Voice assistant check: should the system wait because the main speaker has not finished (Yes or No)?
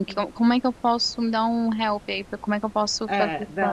No